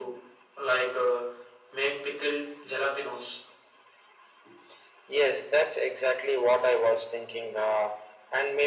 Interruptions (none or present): none